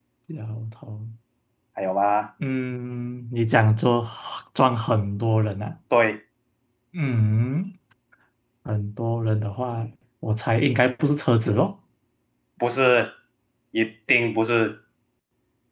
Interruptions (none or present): none